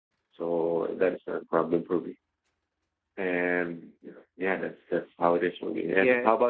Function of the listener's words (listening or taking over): taking over